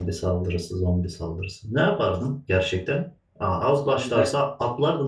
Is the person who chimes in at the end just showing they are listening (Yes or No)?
Yes